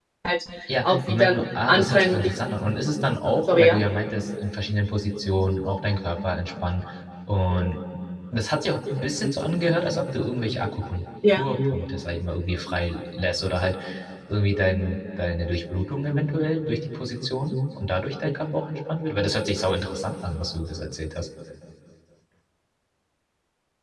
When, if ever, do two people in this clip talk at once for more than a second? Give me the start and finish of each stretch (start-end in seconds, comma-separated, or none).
0.8-2.3